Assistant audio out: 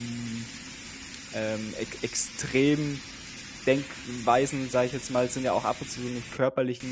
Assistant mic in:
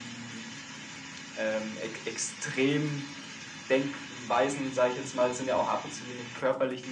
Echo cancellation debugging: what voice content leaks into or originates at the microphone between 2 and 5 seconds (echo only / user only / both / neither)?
echo only